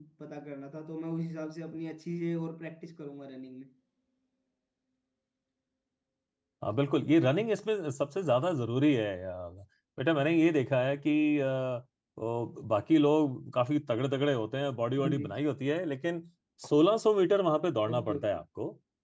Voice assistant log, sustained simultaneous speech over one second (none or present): none